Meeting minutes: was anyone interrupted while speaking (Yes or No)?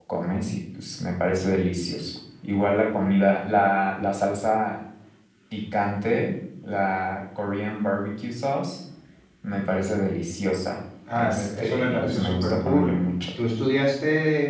Yes